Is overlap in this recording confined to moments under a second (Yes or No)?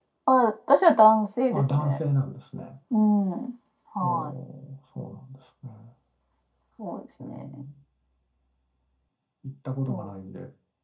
Yes